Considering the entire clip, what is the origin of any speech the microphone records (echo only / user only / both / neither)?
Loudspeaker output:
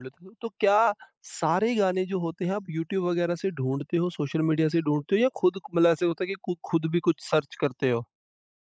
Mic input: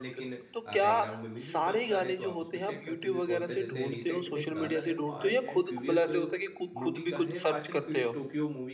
both